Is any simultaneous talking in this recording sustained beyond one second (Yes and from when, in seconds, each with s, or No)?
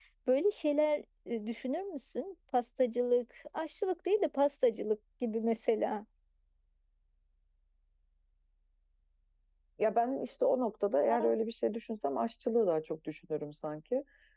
No